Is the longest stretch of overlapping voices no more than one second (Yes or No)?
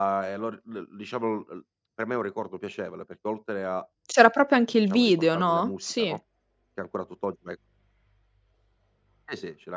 No